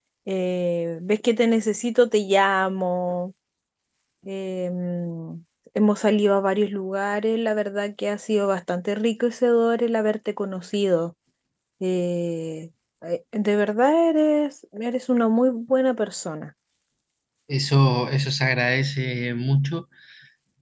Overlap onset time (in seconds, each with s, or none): none